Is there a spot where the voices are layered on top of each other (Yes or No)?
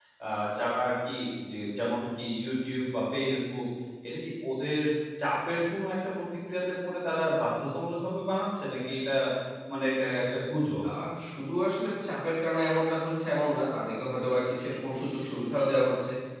No